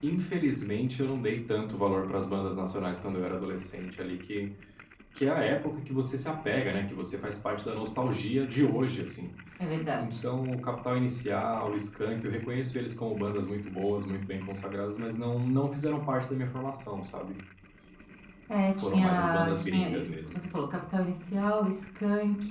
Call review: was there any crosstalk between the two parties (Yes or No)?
Yes